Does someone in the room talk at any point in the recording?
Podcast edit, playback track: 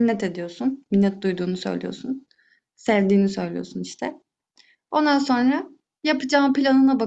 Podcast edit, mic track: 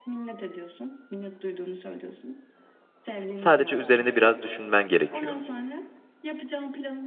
Yes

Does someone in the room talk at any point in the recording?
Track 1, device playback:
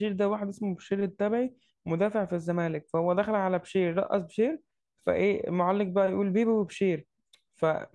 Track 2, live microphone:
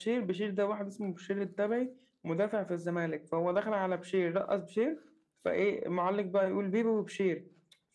No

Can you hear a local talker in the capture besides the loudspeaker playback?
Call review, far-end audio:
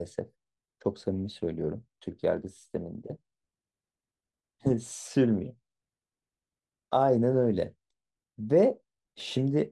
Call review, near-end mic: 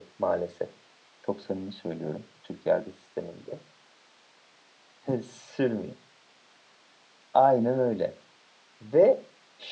No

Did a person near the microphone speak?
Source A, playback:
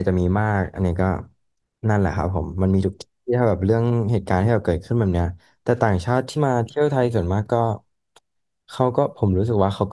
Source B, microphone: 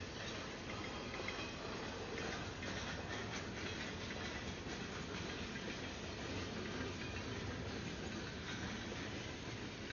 No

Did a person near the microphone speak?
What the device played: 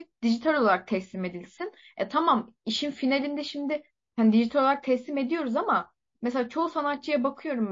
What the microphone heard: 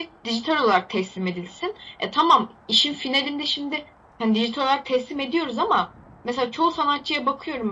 No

